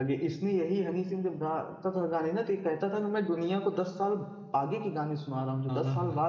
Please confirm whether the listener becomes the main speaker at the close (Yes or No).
No